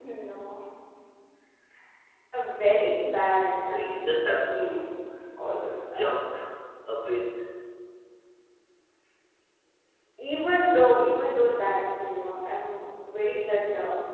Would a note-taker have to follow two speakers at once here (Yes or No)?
Yes